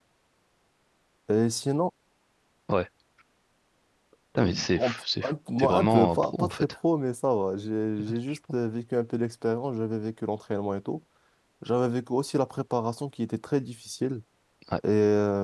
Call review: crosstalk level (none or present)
present